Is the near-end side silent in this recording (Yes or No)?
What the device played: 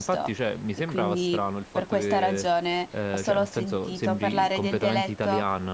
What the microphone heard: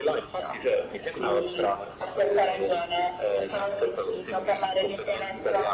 Yes